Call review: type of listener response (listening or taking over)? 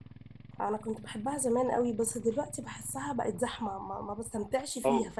taking over